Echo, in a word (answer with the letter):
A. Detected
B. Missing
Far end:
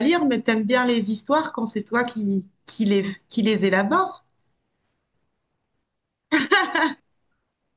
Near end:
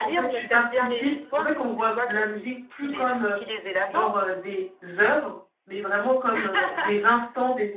A